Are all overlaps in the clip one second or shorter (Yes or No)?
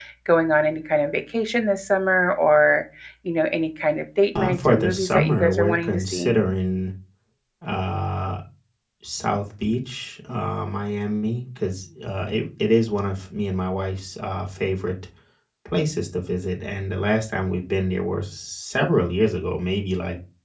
No